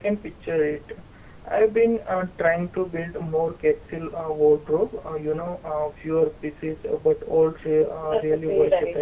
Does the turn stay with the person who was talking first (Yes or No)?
No